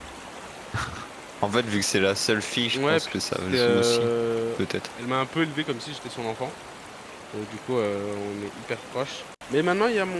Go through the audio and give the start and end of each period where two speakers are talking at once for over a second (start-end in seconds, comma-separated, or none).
2.8-4.1